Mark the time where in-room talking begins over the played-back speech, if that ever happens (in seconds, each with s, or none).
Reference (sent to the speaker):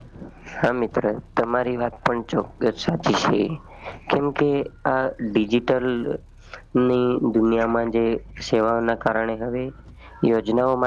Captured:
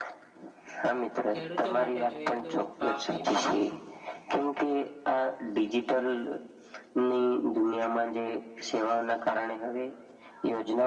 1.3 s